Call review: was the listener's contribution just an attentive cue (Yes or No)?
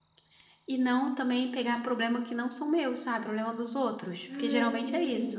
No